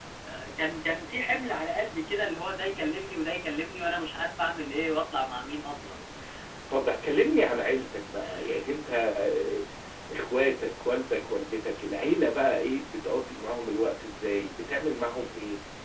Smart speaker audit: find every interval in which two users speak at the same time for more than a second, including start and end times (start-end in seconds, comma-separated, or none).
none